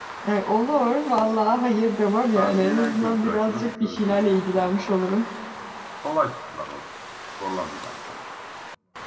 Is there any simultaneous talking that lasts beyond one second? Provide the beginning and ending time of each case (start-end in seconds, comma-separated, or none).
2.4-4.9